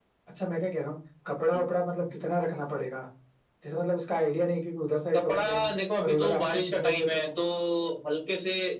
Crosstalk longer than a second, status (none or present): present